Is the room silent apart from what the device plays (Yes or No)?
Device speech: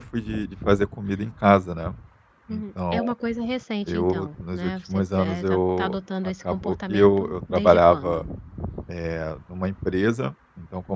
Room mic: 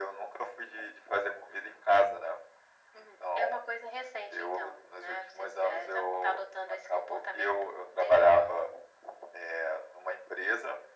Yes